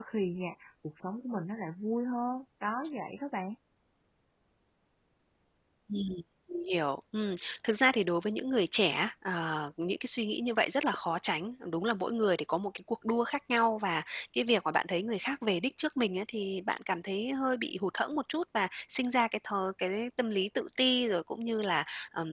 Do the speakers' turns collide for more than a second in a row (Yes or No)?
No